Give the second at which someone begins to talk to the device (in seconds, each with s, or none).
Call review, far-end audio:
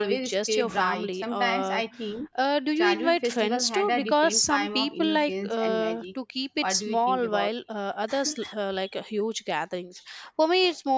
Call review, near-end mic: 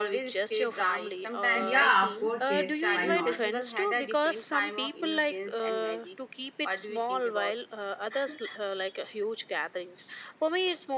1.5 s